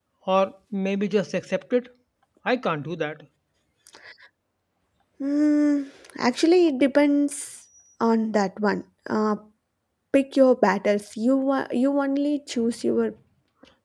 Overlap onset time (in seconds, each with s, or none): none